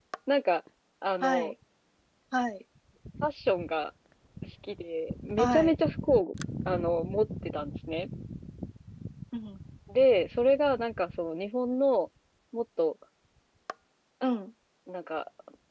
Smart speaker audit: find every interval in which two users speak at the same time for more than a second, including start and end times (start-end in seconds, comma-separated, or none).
none